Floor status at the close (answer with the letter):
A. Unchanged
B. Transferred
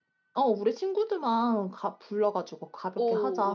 B